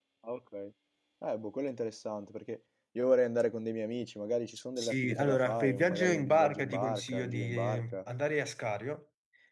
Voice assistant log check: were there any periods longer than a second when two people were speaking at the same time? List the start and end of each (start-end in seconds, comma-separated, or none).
4.8-8.0